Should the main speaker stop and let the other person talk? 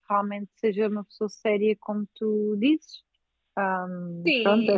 Yes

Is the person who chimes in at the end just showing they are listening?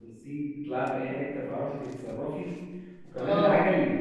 Yes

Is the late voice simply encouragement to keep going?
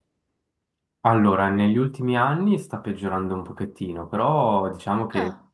Yes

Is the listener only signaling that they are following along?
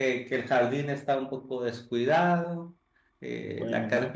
Yes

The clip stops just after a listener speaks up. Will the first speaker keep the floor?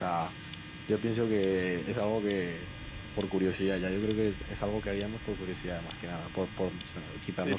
No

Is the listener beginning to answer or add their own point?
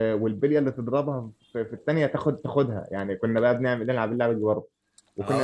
Yes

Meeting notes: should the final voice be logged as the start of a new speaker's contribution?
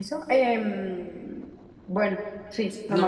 Yes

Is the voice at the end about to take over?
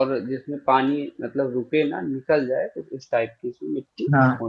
Yes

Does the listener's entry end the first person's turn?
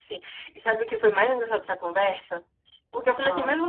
No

